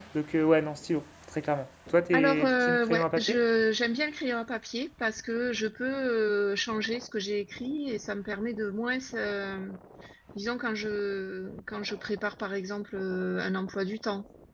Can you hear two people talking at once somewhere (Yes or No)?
Yes